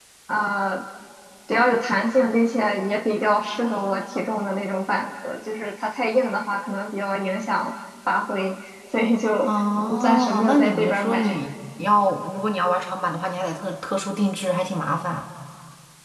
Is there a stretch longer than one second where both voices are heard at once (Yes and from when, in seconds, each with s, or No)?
Yes, from 9.4 s